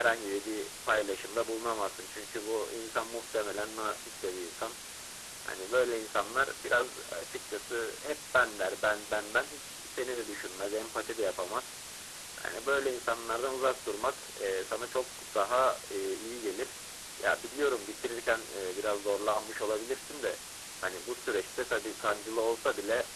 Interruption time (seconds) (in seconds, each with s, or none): none